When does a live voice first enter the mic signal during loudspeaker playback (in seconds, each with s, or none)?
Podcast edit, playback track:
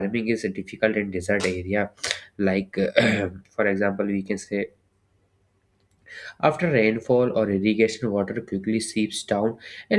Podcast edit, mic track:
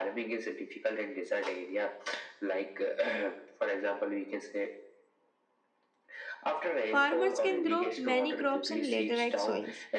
6.9 s